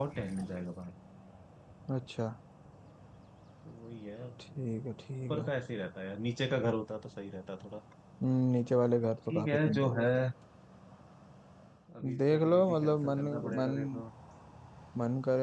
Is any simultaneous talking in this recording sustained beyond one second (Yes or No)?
Yes